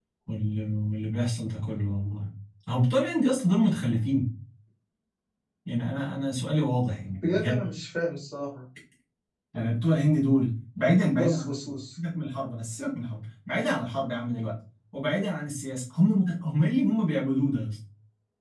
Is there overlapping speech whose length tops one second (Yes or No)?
No